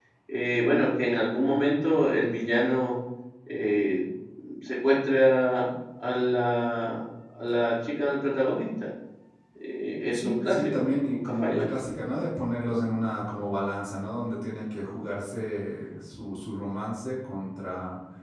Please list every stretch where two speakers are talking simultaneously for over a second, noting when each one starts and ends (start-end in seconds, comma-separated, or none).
10.1-11.7